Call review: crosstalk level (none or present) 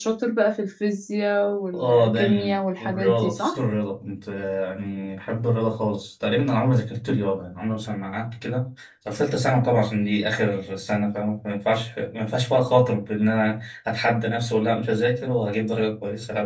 present